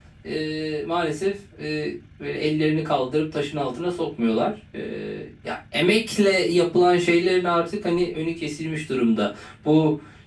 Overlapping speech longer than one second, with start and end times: none

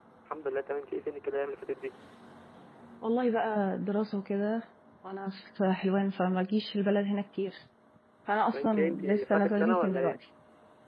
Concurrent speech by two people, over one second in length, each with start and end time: 8.5-10.2

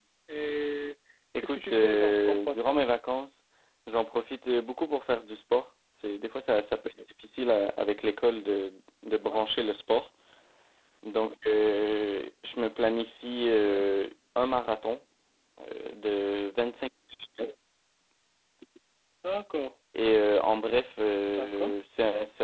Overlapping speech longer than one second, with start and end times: 1.4-2.8

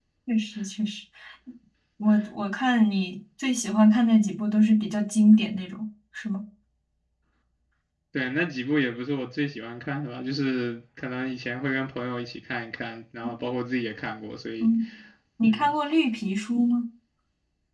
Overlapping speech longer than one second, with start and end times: none

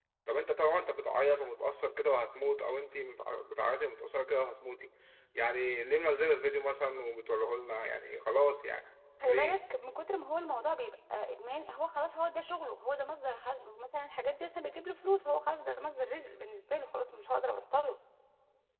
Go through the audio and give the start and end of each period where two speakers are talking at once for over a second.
none

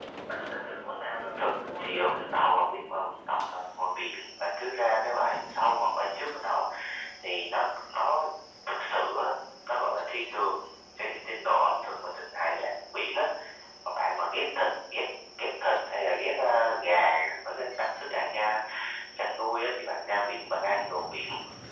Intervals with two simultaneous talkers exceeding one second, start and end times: 1.1-2.6

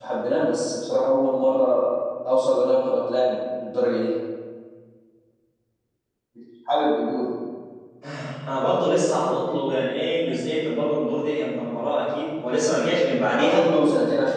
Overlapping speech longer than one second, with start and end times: none

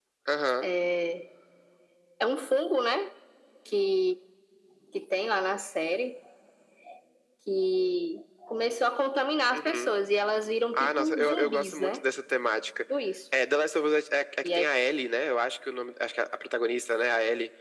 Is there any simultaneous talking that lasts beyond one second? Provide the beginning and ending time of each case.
10.7-12.0

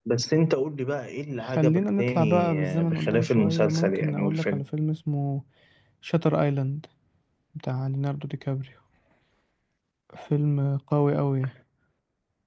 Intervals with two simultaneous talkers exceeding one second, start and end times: 1.4-4.6

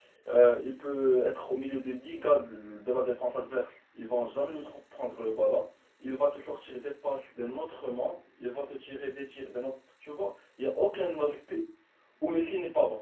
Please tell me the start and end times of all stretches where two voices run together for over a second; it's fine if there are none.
none

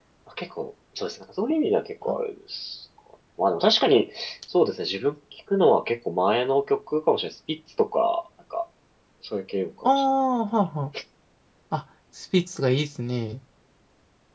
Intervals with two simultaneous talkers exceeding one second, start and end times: none

